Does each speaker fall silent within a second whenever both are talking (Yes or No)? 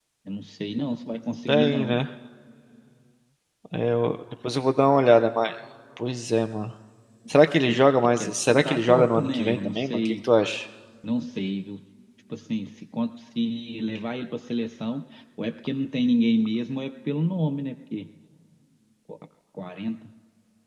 No